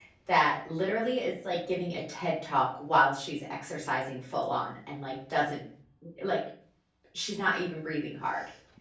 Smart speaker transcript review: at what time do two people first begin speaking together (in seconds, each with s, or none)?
none